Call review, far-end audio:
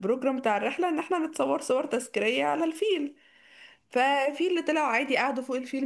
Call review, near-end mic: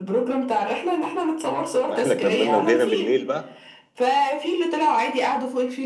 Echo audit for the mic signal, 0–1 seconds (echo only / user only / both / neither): echo only